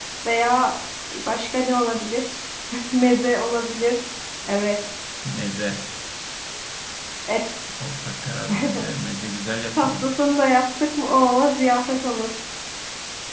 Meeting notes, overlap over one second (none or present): none